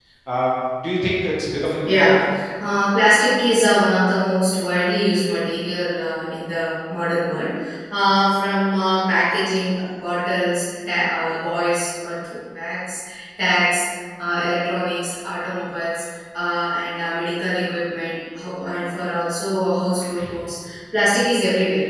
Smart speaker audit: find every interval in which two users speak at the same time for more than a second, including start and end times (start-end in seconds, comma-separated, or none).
none